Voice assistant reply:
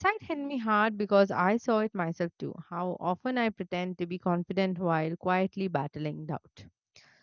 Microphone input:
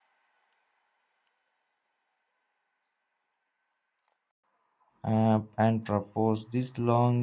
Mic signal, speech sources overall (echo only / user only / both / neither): user only